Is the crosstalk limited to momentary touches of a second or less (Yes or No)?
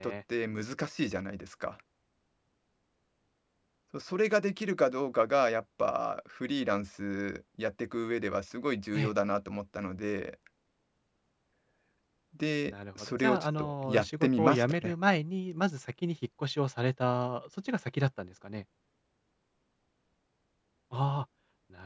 No